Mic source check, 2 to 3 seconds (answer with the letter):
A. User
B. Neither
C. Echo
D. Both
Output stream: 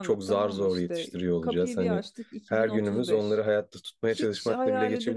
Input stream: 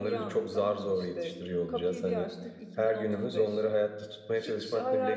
C